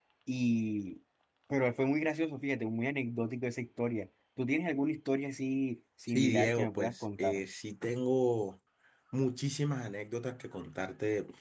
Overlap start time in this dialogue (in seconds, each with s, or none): 6.1 s